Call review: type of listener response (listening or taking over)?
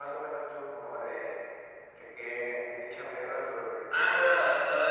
taking over